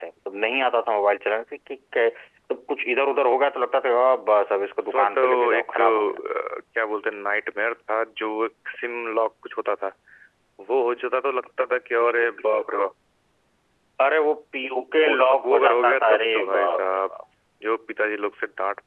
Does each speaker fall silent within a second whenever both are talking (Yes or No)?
No